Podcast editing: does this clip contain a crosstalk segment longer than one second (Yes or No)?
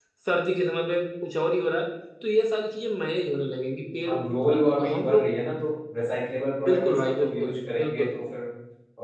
Yes